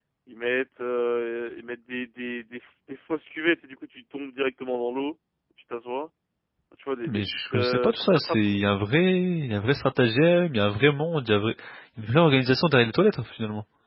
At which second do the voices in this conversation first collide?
7 s

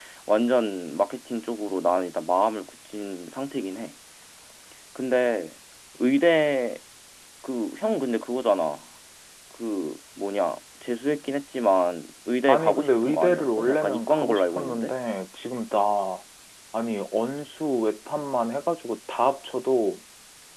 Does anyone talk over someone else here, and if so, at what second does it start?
12 s

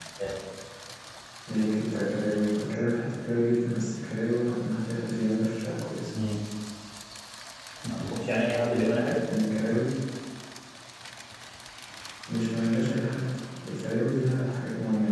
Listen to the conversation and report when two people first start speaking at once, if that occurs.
none

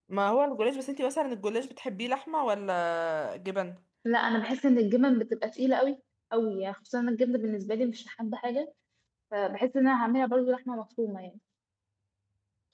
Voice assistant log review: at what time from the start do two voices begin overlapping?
none

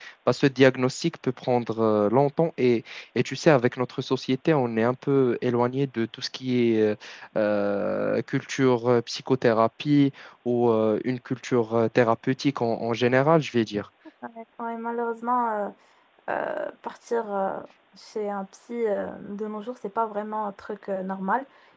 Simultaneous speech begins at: none

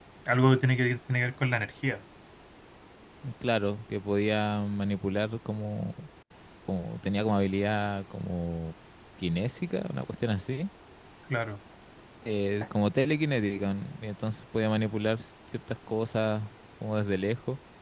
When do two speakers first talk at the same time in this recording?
none

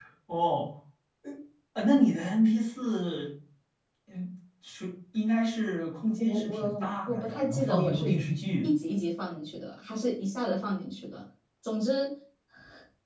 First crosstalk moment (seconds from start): 6 s

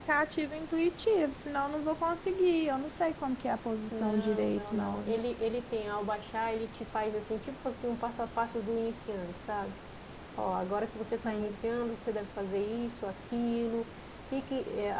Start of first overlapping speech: 4 s

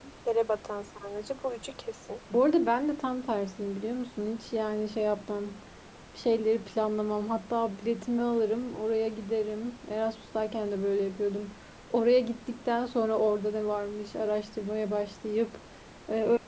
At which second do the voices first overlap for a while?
none

